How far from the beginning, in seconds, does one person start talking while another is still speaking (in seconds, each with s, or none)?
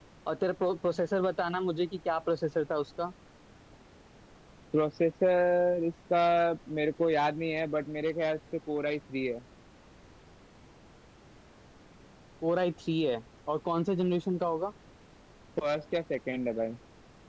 none